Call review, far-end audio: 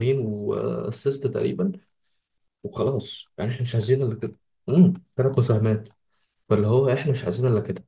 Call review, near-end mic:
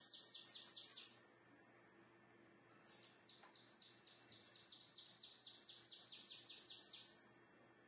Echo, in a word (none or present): none